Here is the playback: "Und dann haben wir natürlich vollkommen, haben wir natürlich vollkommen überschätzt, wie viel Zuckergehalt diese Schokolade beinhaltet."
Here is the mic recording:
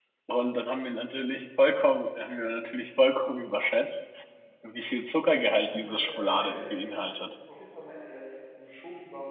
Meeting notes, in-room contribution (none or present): present